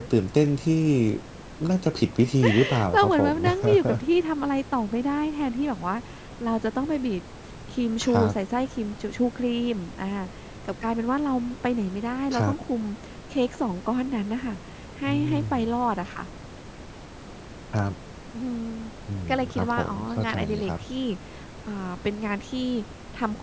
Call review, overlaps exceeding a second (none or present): present